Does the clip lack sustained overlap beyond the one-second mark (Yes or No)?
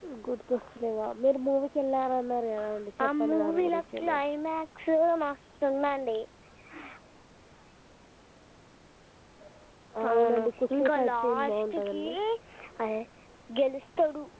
No